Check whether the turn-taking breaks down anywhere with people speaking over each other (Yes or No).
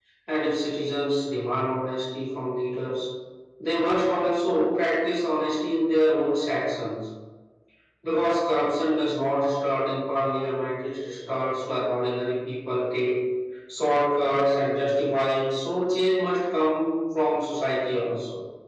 No